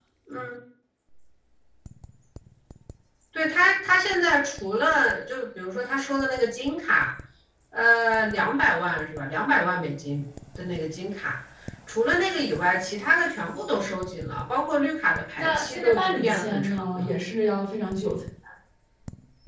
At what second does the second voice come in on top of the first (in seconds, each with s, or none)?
15.4 s